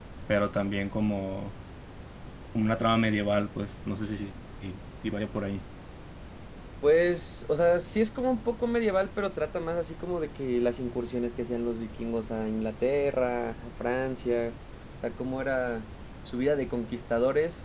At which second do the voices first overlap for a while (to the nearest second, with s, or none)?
none